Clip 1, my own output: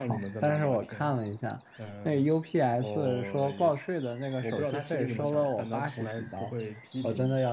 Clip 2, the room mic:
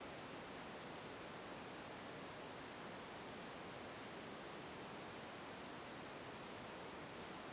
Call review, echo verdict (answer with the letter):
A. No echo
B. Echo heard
A